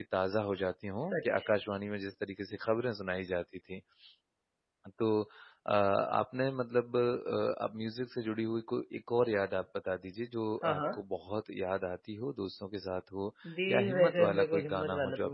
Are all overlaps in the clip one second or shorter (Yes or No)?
No